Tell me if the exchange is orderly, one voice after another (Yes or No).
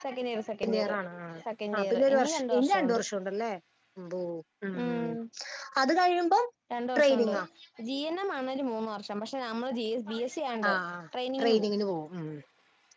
No